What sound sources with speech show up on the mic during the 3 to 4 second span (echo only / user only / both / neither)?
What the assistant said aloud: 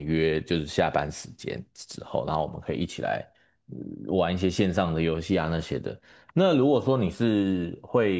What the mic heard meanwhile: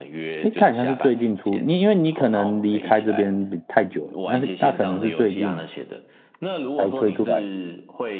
both